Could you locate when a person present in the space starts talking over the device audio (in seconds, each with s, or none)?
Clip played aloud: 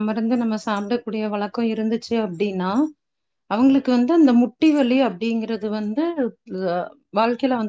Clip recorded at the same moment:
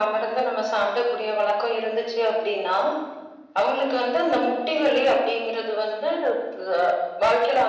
none